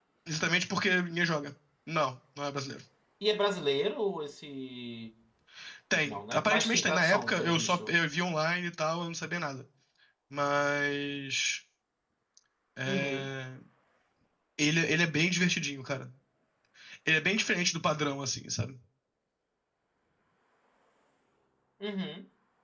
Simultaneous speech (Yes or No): Yes